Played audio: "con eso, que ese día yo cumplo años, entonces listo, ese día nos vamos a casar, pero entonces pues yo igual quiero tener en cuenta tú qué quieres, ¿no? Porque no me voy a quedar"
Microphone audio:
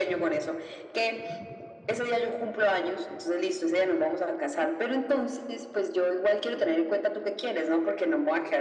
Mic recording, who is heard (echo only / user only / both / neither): echo only